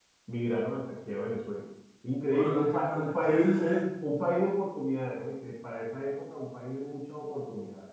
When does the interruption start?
2.3 s

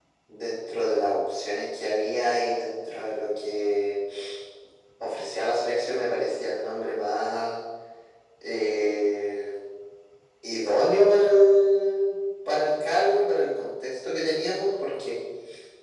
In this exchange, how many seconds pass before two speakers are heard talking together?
none

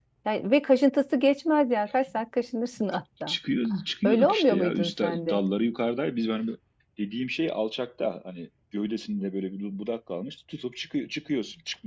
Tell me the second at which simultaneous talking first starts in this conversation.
4.0 s

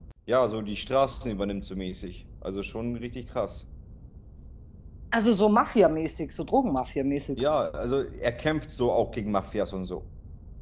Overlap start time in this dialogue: none

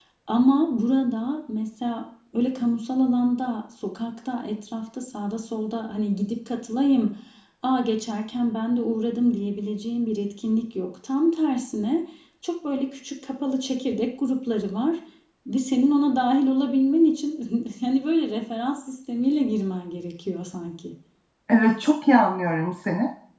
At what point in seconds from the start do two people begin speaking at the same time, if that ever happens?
none

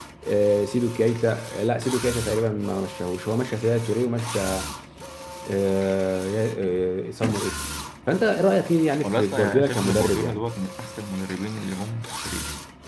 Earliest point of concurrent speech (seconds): 9.0 s

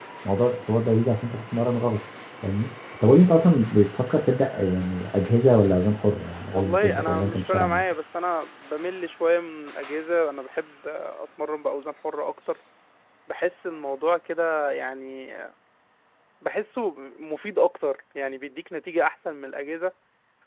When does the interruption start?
6.5 s

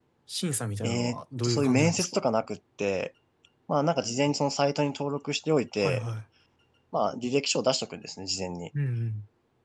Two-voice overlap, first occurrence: 0.8 s

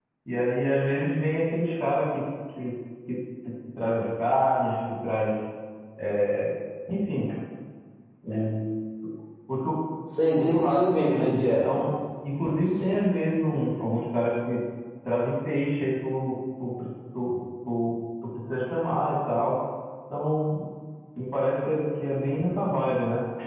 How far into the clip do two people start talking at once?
10.3 s

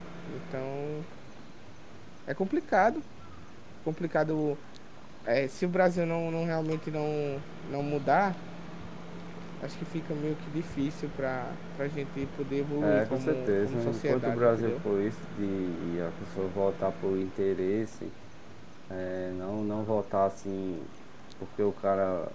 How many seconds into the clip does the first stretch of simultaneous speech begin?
12.8 s

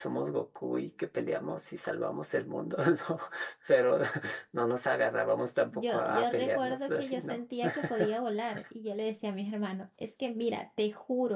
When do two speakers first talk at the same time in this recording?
5.7 s

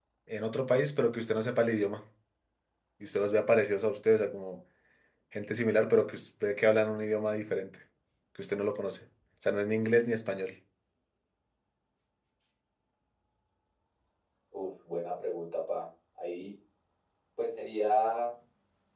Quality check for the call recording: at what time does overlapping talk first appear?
none

